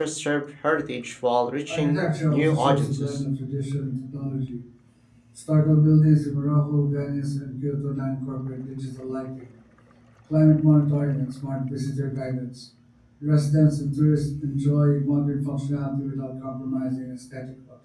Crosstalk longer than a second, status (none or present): present